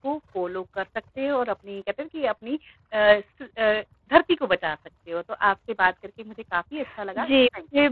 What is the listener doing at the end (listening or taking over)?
taking over